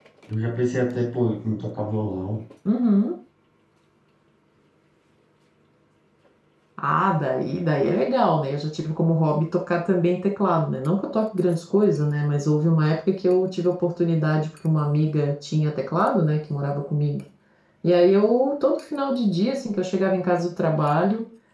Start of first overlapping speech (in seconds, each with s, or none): none